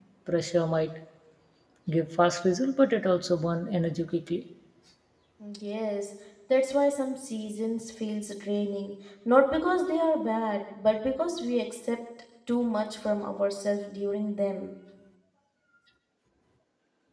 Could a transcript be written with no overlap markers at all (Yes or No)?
Yes